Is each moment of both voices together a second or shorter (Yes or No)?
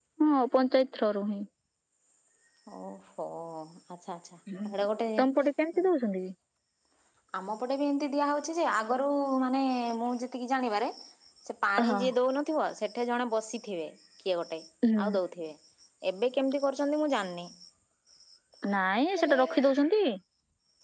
Yes